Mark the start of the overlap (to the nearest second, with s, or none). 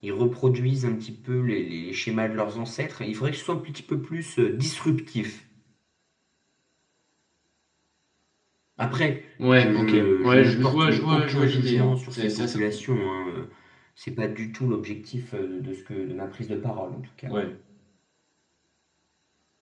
10 s